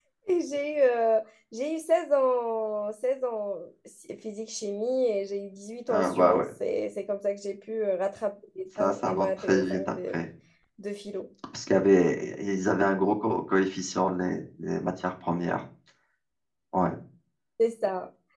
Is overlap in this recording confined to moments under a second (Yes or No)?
No